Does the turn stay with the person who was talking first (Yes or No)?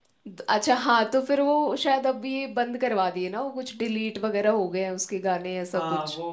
No